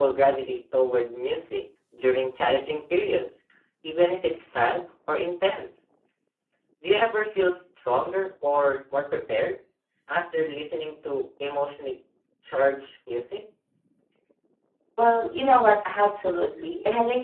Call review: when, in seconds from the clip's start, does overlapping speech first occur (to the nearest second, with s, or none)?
none